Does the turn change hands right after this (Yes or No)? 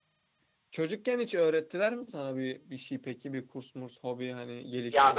Yes